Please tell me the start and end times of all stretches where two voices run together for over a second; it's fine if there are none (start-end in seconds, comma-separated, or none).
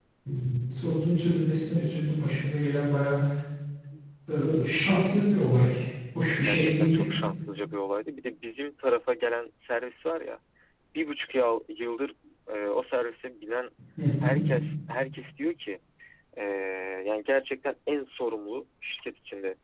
none